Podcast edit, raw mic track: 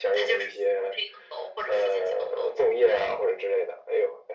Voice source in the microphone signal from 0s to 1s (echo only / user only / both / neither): echo only